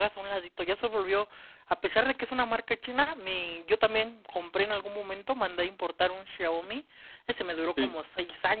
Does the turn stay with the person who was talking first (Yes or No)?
Yes